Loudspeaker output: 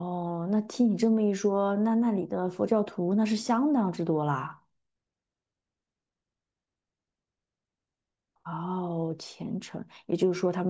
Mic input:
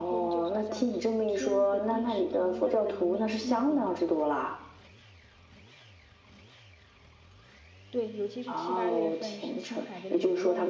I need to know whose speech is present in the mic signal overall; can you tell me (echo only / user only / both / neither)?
both